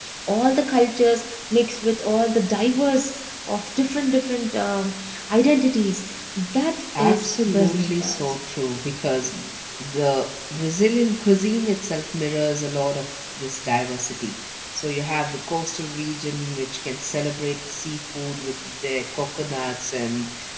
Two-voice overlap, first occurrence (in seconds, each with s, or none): 7.0 s